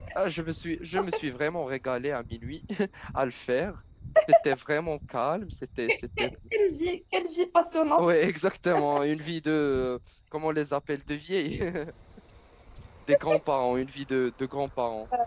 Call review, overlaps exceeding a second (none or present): none